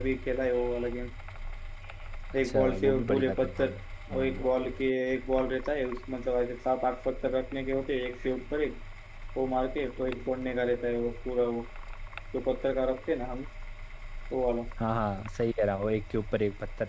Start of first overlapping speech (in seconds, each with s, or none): 2.4 s